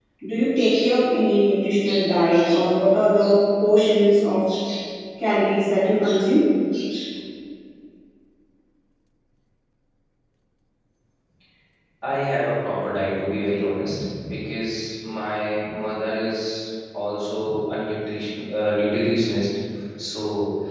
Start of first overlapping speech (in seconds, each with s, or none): none